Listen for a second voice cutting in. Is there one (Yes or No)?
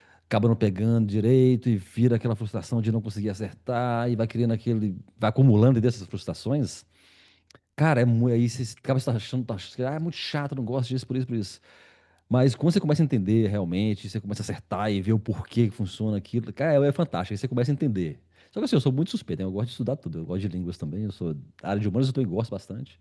No